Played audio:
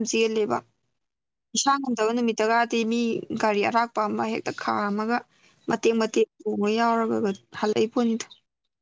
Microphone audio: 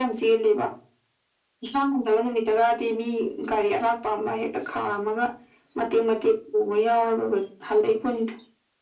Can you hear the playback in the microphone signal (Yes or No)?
Yes